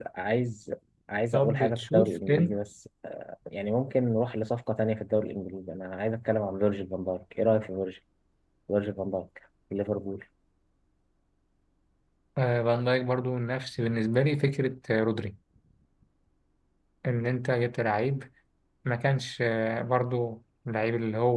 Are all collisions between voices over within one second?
No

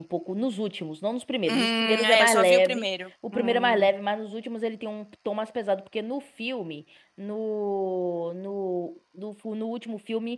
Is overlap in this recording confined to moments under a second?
No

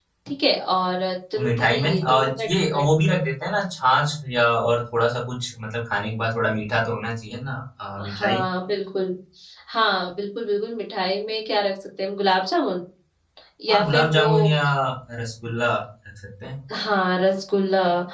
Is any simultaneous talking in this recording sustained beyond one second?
Yes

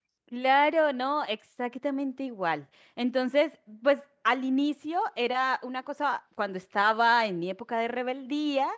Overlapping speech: No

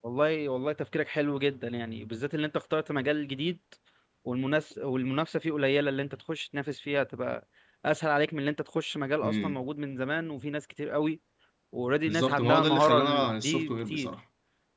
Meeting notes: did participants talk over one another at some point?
Yes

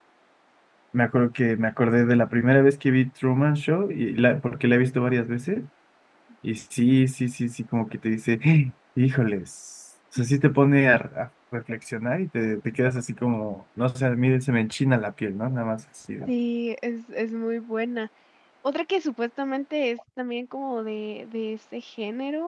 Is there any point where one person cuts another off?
No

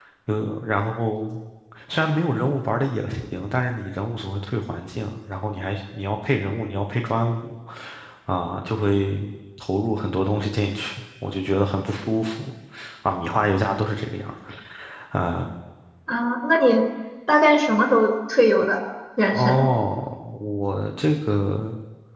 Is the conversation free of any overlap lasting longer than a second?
Yes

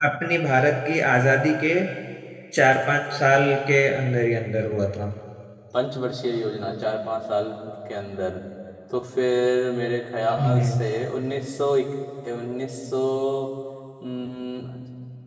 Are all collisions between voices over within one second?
Yes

